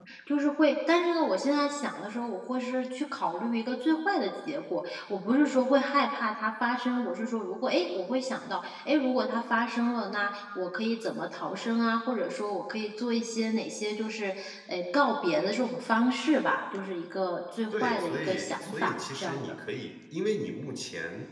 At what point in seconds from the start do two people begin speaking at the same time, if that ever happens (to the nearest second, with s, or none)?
18 s